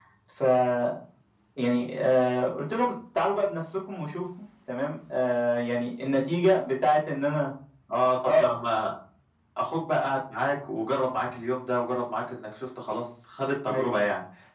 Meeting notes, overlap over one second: none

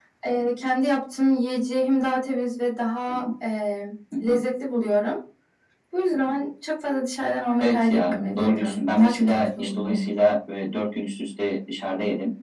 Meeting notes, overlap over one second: present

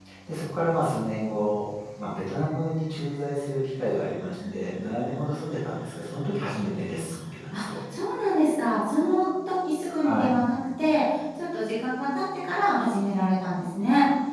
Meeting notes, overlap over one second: none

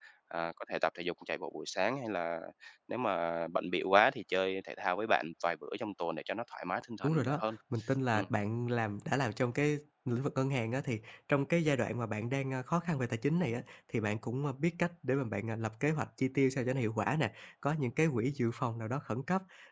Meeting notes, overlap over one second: none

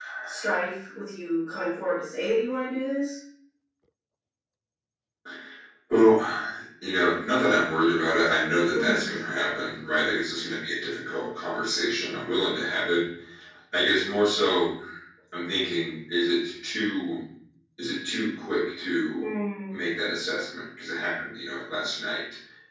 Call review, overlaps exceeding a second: none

